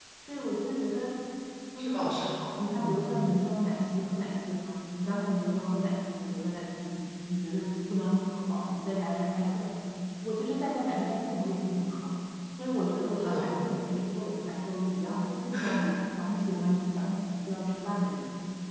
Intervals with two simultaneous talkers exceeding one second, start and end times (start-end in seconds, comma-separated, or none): none